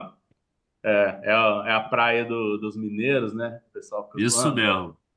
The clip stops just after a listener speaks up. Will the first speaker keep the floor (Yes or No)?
No